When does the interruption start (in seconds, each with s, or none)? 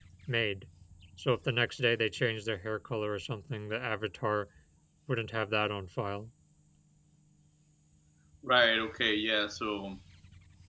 none